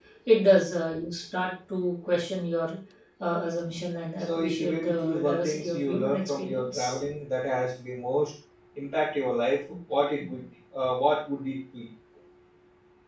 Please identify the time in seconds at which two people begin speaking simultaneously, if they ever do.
4.2 s

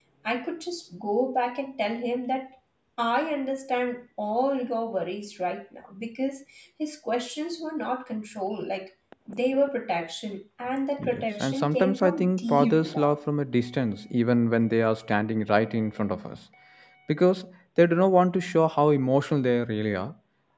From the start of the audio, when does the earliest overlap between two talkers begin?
11.0 s

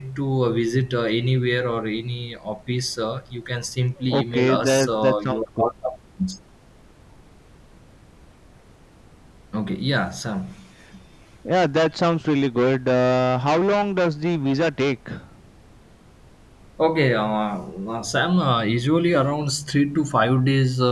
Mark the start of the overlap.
4.1 s

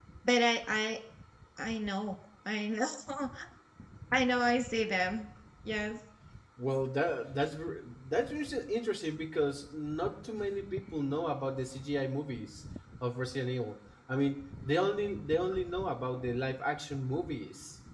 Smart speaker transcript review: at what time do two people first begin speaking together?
none

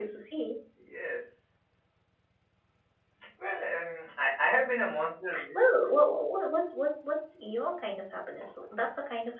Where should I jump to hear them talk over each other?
none

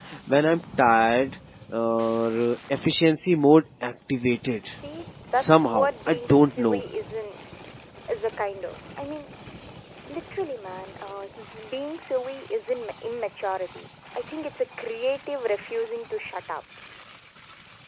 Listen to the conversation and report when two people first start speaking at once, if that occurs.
5.3 s

